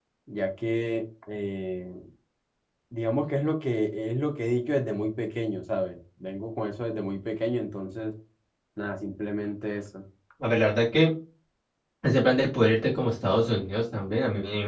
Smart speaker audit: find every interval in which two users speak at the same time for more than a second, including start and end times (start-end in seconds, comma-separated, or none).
none